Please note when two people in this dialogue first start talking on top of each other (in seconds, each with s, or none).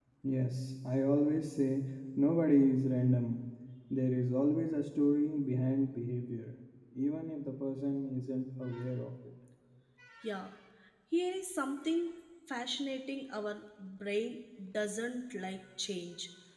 none